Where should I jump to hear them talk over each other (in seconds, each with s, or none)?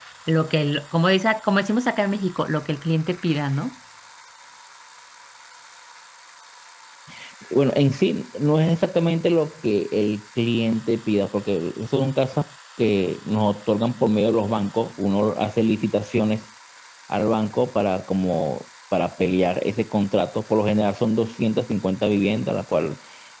none